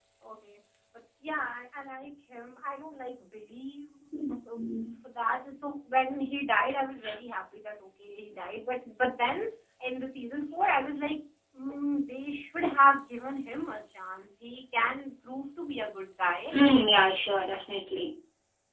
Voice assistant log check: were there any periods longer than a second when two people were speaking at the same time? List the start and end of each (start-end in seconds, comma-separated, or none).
none